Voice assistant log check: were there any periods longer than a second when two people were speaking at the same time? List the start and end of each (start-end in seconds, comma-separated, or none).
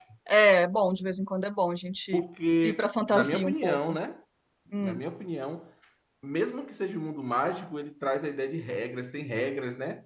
2.6-4.0